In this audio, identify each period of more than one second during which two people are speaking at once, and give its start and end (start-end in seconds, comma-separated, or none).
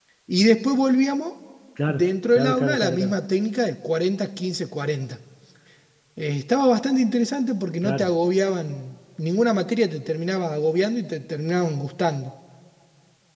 1.9-3.2